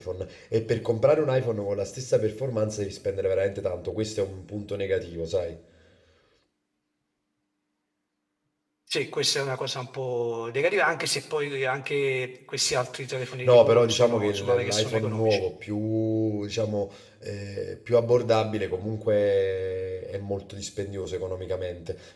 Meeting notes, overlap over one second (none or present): present